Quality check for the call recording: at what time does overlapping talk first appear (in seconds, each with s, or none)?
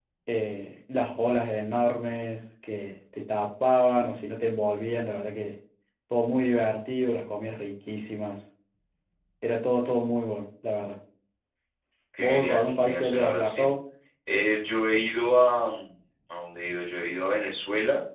12.2 s